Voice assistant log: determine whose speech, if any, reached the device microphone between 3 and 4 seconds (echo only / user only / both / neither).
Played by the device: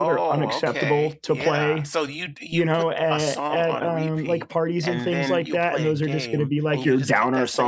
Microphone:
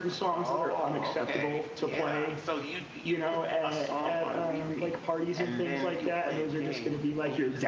echo only